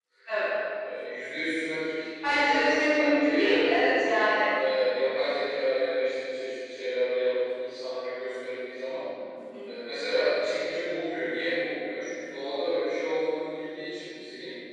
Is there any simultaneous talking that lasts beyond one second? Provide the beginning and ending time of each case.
2.2-3.6

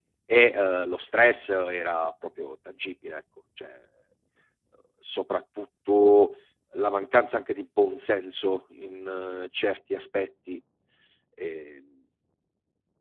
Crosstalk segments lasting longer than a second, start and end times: none

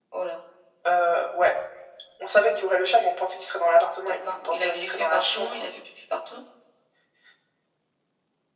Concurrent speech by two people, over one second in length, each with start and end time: 4.0-5.6

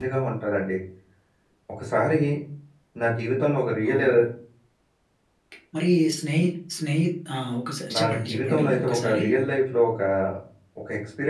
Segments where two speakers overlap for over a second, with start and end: 7.9-9.2

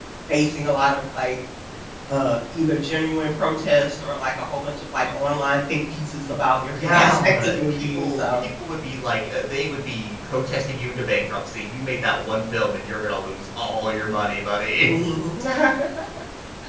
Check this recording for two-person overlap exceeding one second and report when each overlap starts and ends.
6.7-8.4

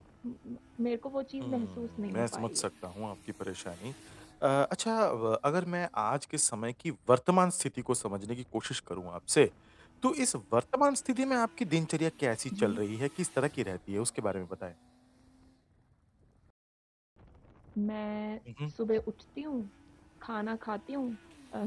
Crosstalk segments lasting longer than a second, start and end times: 1.4-2.6

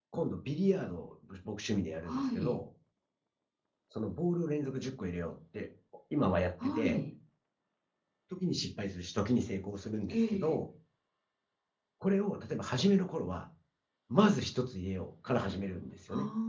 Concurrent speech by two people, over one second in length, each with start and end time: none

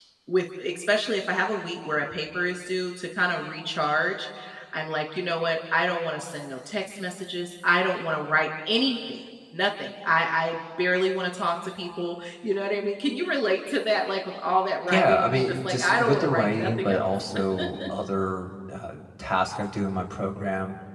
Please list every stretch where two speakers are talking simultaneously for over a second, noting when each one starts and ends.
14.9-17.1

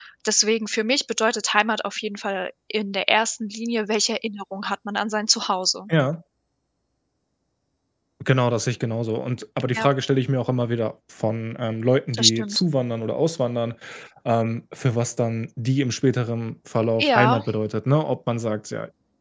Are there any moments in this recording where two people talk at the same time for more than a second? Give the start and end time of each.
none

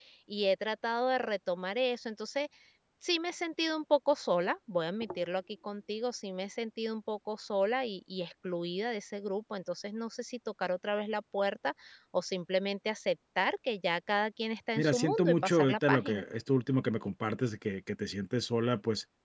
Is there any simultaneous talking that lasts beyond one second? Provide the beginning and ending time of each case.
14.8-16.2

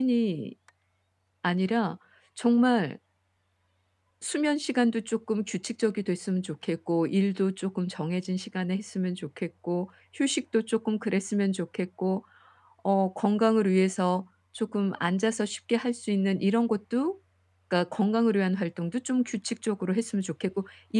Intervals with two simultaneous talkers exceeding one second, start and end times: none

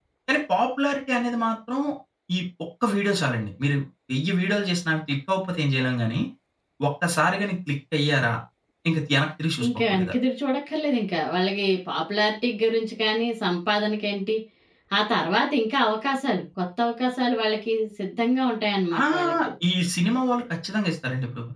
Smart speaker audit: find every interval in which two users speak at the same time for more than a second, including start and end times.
none

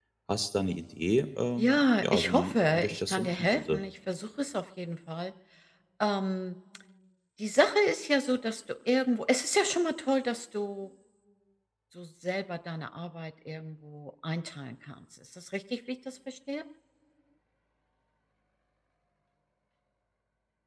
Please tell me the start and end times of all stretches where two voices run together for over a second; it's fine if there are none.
1.6-3.8

